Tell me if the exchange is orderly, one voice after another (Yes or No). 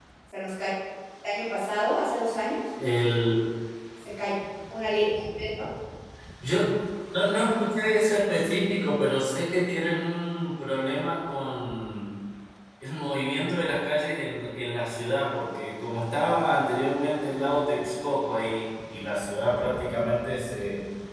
Yes